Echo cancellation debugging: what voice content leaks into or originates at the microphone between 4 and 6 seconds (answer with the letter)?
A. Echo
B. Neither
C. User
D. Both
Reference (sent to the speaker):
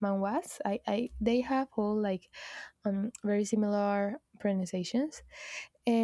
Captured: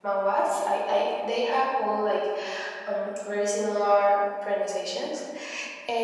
A